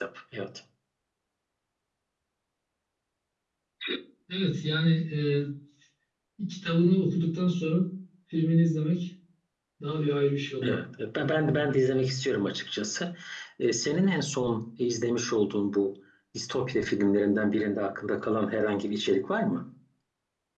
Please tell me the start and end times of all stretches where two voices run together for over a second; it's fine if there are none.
none

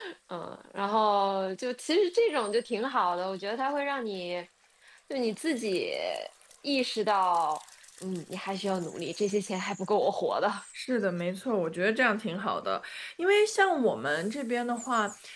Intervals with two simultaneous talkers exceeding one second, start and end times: none

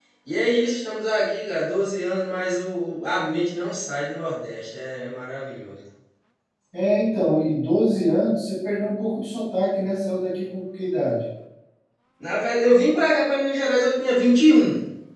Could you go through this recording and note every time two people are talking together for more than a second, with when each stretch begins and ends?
none

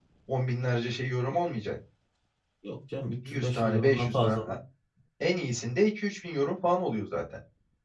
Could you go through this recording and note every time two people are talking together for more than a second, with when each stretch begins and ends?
3.2-4.5

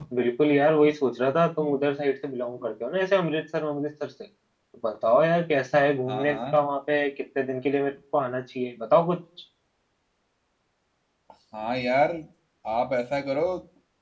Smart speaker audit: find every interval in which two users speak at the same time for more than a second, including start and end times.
none

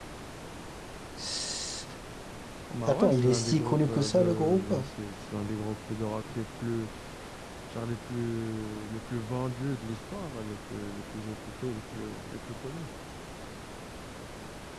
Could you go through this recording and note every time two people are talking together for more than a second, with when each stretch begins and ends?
2.8-4.7

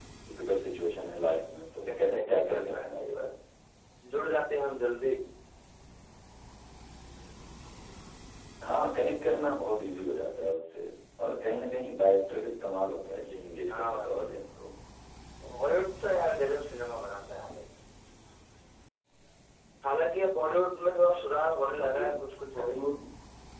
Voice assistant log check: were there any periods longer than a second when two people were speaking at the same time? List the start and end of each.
1.9-3.3

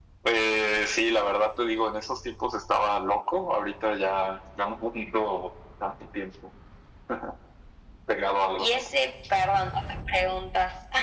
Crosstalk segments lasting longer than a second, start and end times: none

